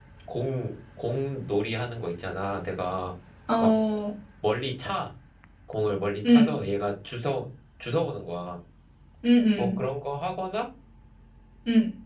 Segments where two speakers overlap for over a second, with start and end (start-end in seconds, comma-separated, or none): none